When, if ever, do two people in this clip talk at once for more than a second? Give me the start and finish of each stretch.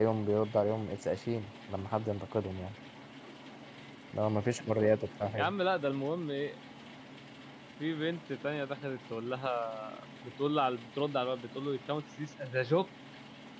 none

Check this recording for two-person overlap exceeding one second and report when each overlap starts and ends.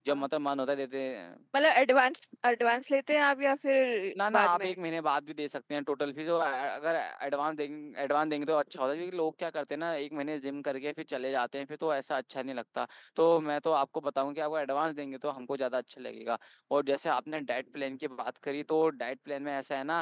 none

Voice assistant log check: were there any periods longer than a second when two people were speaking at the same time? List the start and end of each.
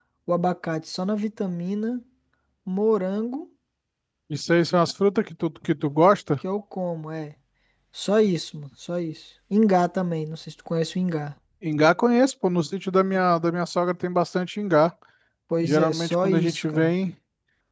15.6-16.9

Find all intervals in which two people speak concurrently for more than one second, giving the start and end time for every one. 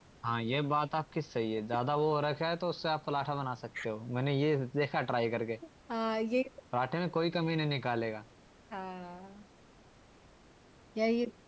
none

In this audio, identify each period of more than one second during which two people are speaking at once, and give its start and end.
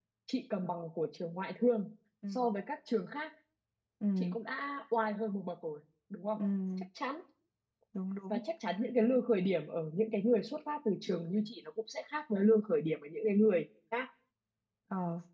none

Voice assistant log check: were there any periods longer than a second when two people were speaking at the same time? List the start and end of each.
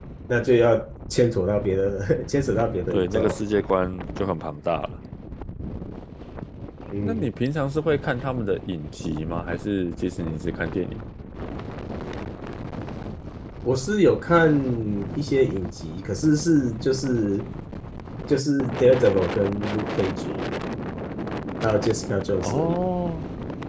none

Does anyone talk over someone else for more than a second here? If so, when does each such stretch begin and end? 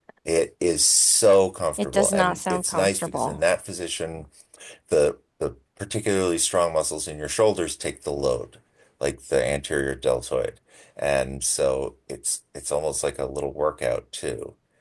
1.8-3.4

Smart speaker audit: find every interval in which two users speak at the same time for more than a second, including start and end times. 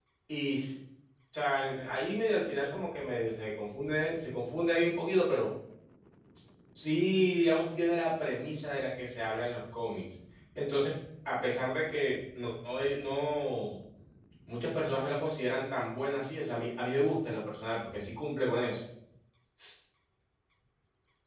none

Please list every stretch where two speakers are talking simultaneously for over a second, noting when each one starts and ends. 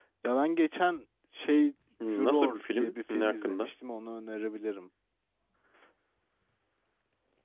2.1-3.7

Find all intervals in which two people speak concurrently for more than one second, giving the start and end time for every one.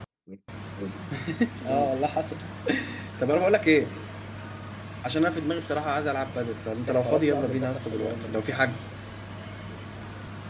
6.9-8.4

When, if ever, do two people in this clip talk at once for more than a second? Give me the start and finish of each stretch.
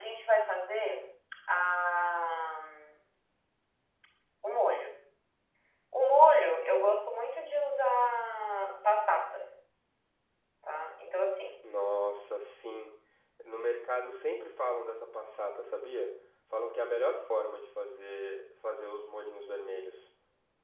none

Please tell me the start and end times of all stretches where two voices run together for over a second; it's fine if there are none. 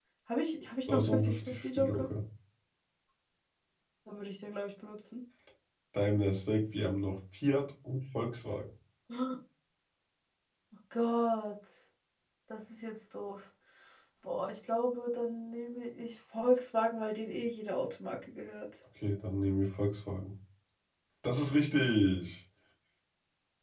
0.9-2.1

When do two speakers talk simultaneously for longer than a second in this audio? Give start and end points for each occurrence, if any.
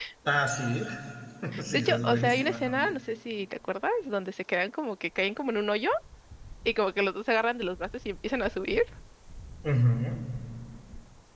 1.7-2.9

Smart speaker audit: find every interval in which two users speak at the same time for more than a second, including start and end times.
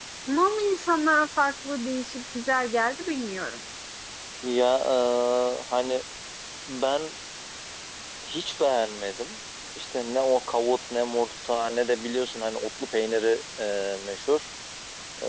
none

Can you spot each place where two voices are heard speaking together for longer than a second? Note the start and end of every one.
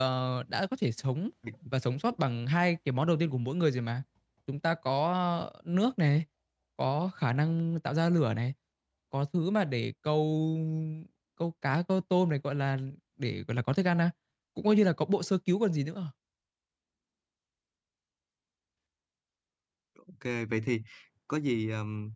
none

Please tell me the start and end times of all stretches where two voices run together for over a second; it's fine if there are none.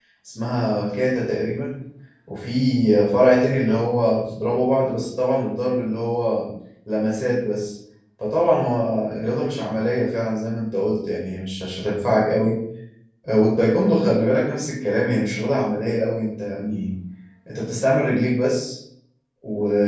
none

